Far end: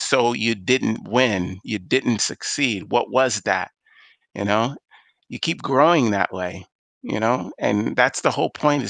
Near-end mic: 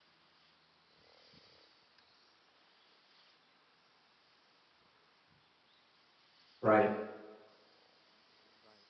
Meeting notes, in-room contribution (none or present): present